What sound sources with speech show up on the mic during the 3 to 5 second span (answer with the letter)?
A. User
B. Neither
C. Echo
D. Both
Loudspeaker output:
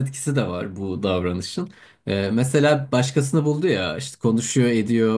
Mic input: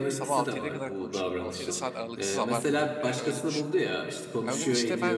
D